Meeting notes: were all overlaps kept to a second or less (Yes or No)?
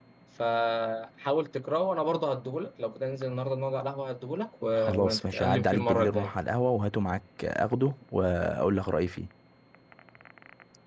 No